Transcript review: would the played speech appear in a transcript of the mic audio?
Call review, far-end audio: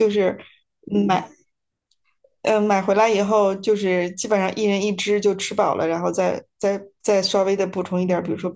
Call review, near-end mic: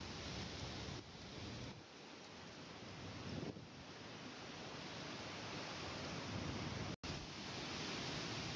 No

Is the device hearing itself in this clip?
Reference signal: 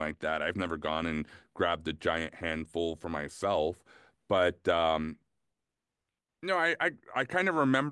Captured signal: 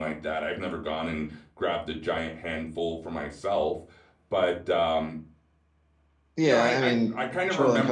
Yes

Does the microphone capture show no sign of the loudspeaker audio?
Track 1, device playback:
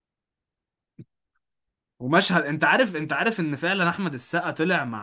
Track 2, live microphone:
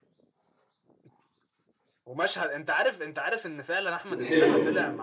No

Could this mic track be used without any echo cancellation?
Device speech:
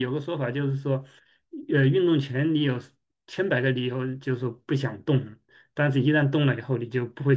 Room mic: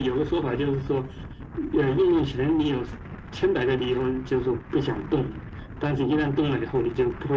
No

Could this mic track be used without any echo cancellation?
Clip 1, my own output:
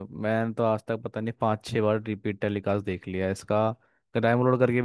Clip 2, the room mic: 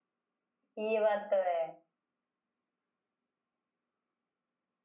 Yes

